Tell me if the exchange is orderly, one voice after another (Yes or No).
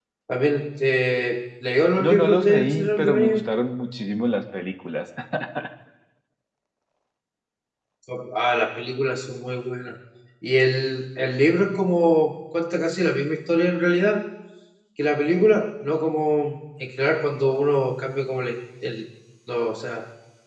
No